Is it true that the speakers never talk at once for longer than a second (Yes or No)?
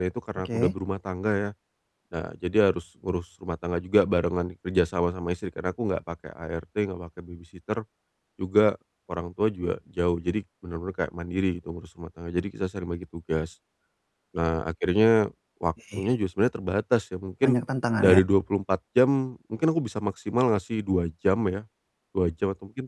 Yes